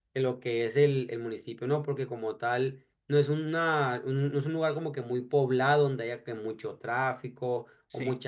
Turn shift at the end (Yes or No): No